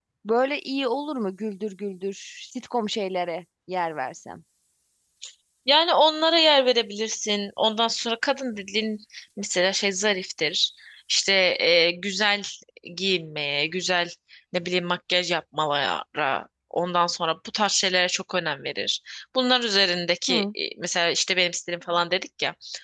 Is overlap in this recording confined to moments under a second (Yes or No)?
Yes